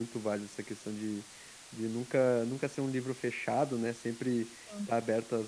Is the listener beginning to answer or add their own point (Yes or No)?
No